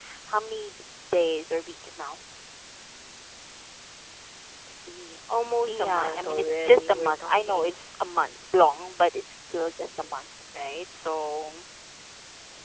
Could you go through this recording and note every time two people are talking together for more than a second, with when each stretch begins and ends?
5.7-7.8

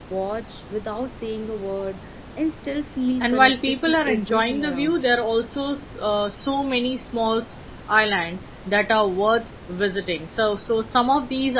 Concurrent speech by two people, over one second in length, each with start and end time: 3.2-5.1

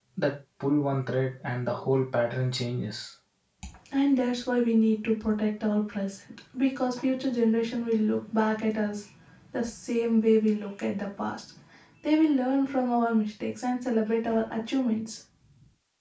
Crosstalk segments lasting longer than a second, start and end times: none

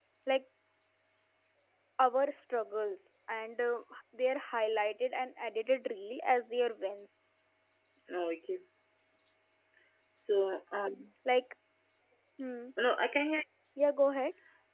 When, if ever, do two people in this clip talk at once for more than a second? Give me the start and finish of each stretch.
none

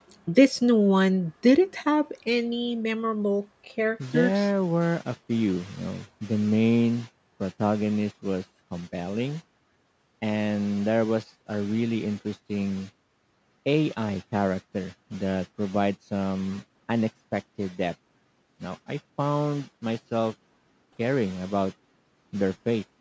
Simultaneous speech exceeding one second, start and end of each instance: none

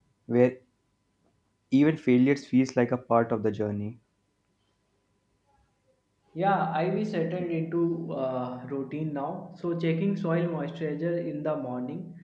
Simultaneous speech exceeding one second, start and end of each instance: none

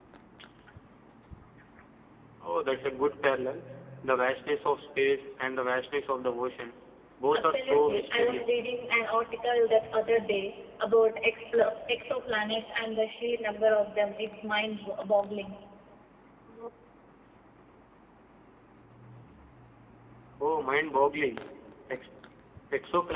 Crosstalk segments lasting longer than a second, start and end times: 7.3-8.6

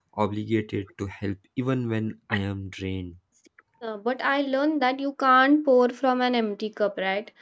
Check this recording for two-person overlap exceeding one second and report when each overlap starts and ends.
none

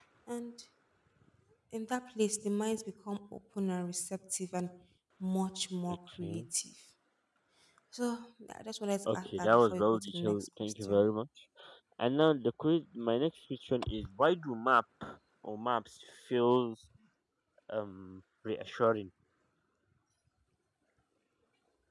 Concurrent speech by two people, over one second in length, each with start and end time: 9.1-11.0

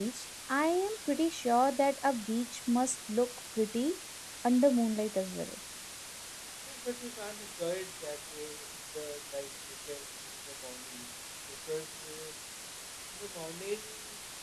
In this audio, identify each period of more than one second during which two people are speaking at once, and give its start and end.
none

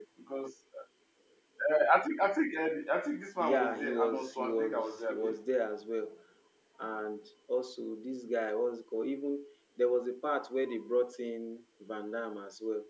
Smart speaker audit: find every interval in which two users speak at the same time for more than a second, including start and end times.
3.4-5.4

